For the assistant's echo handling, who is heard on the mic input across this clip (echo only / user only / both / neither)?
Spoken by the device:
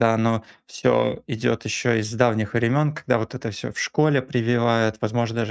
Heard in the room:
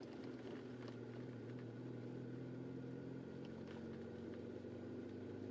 neither